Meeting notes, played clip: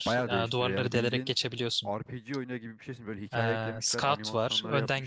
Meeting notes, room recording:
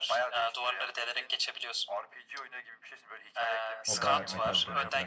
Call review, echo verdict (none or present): present